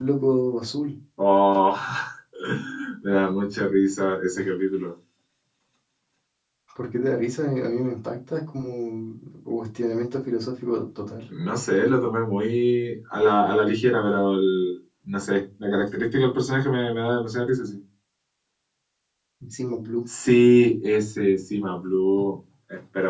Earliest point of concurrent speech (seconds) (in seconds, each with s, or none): none